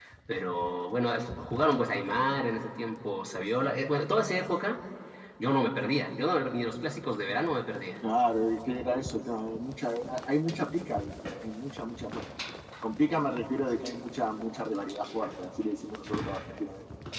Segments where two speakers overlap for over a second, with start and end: none

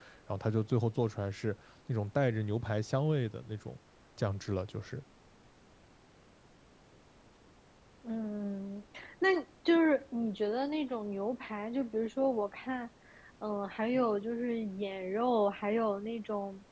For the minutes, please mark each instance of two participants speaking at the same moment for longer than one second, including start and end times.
none

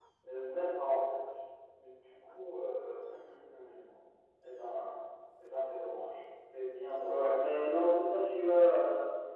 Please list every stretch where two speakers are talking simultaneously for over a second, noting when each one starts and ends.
none

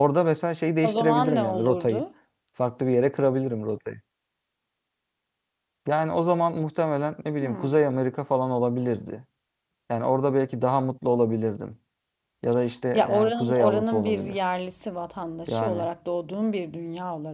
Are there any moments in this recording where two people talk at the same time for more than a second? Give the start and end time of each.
0.8-2.0, 12.9-14.4

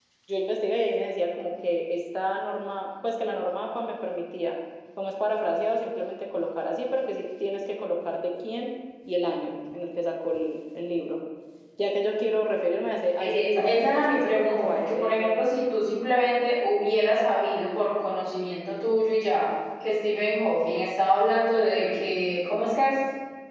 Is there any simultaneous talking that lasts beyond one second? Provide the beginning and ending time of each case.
13.2-15.4

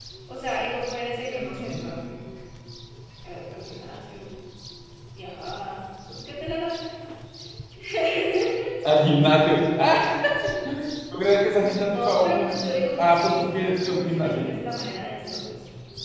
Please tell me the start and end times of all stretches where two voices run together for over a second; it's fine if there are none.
11.9-14.5

